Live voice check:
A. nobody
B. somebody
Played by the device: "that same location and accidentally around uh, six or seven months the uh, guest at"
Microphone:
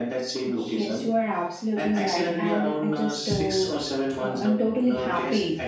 B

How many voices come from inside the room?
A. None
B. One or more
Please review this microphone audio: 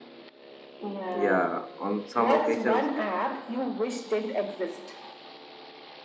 B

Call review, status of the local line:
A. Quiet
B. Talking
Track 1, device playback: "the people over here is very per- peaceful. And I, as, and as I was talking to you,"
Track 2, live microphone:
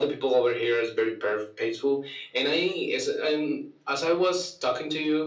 A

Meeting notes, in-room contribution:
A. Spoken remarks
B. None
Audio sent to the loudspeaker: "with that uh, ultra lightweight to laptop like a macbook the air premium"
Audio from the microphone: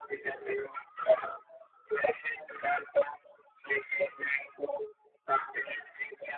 B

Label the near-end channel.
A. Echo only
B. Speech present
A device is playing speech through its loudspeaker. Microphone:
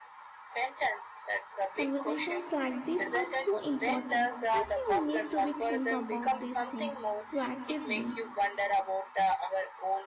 B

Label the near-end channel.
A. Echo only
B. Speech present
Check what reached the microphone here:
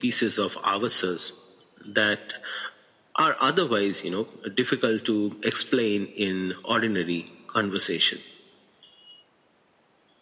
A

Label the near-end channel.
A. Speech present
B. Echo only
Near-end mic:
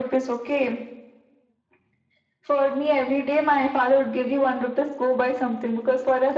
B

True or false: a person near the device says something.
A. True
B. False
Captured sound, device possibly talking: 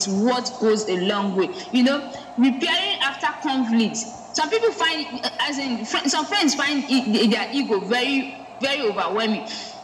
B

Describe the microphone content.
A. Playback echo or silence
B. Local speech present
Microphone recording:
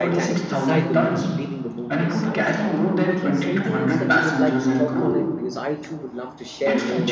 B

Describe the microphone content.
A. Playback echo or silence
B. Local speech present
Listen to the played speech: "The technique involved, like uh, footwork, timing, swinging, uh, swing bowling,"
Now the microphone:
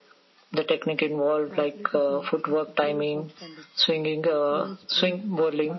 B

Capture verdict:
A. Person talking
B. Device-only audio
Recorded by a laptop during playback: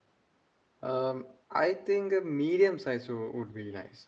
A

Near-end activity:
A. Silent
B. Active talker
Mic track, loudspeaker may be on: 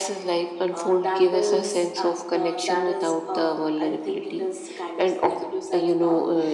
A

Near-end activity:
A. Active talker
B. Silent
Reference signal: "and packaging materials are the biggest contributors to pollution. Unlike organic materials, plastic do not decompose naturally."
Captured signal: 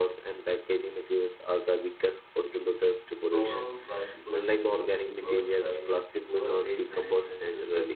A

